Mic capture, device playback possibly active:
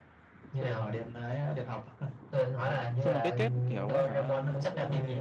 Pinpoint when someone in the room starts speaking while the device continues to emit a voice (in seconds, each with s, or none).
3.0 s